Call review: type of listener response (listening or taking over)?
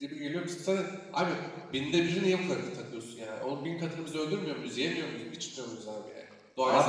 listening